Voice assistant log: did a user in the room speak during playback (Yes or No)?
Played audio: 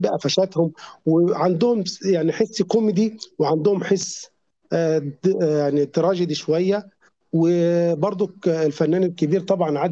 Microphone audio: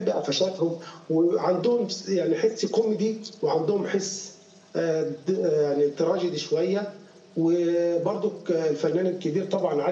No